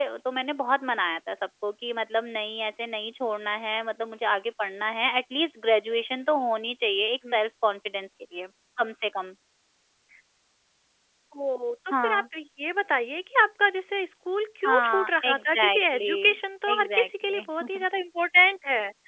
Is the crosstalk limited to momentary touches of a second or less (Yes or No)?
No